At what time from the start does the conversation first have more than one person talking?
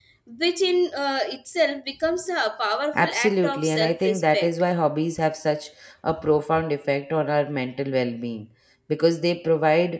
3 s

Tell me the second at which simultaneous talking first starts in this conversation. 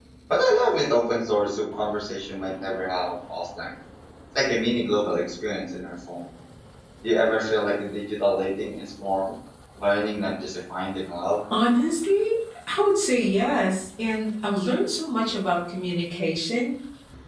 none

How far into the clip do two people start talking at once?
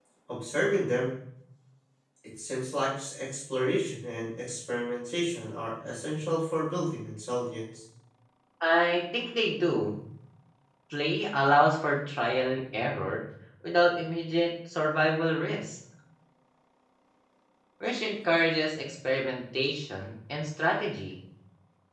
none

